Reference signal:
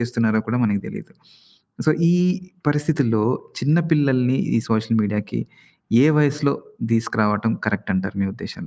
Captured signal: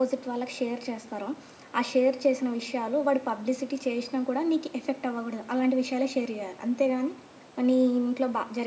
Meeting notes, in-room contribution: present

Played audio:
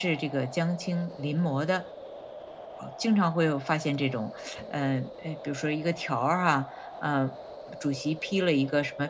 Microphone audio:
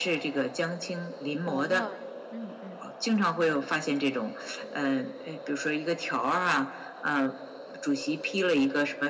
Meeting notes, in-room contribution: present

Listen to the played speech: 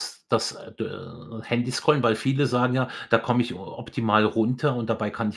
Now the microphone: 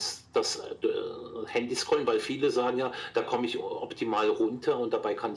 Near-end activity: none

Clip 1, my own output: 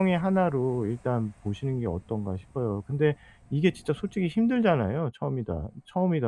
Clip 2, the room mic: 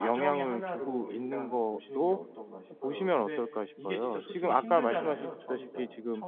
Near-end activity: present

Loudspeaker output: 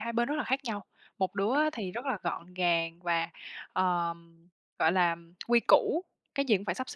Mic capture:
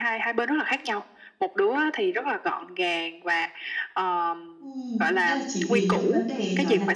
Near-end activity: present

